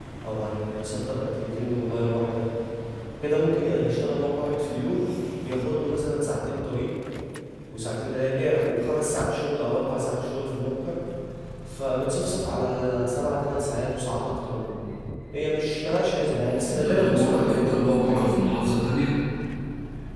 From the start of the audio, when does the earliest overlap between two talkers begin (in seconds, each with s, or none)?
16.7 s